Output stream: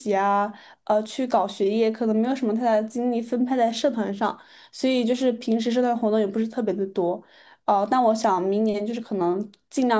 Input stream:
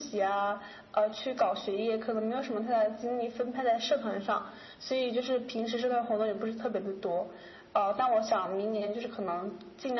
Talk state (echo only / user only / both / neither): echo only